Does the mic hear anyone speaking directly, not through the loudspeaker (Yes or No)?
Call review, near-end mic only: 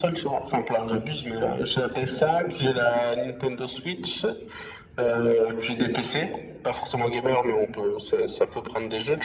No